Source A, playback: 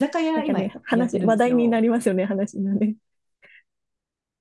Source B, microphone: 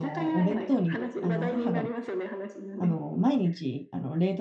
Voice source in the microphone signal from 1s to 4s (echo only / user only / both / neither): both